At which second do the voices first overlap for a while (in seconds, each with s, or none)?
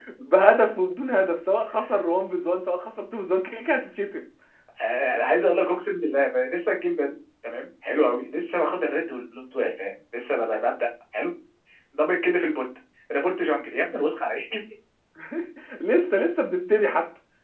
none